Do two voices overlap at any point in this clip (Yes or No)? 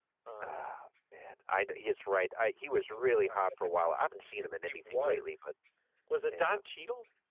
Yes